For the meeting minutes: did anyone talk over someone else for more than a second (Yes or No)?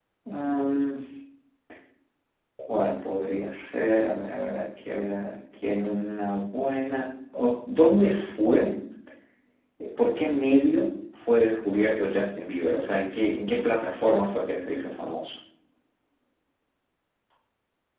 No